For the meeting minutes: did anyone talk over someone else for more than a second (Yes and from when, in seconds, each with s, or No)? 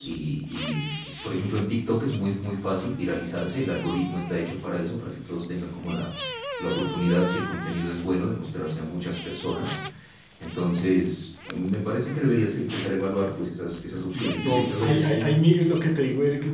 Yes, from 13.9 s